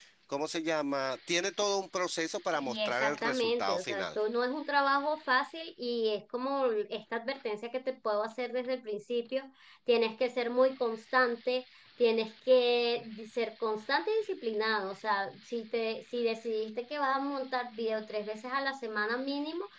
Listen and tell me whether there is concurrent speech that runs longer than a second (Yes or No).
Yes